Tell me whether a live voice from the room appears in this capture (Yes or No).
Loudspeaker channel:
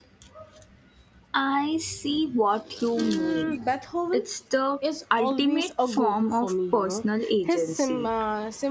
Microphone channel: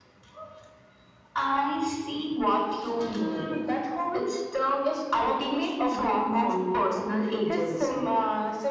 No